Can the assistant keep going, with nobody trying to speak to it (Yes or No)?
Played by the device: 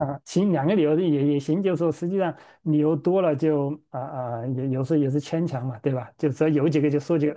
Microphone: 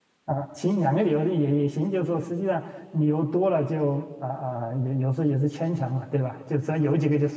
Yes